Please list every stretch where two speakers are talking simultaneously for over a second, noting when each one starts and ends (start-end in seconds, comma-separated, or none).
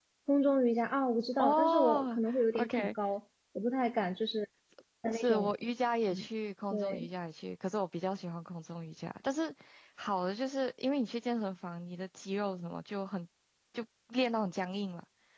1.4-2.9